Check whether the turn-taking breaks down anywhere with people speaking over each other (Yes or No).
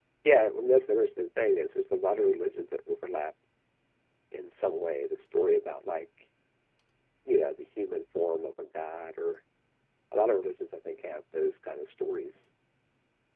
No